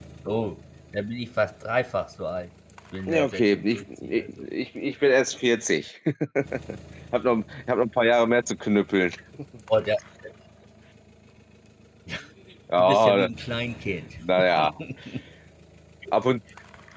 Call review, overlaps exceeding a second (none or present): present